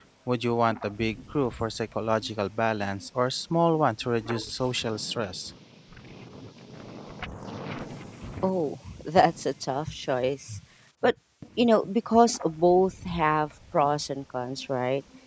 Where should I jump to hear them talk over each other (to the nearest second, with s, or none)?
none